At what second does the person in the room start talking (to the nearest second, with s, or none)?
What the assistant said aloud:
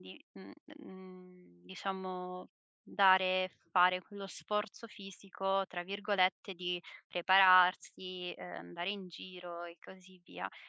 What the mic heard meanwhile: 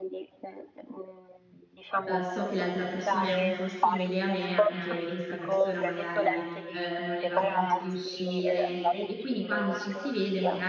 2 s